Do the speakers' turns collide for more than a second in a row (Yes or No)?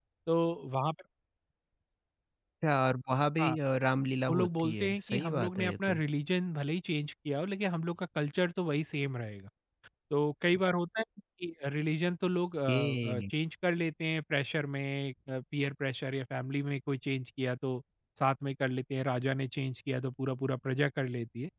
Yes